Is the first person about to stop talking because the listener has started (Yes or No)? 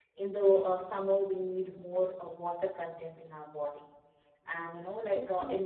No